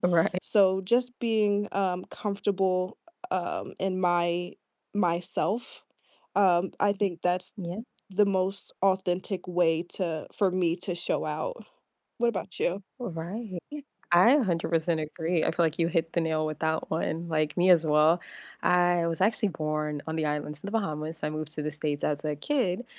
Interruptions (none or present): none